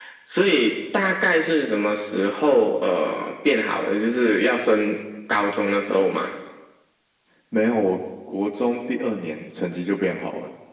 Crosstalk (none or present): none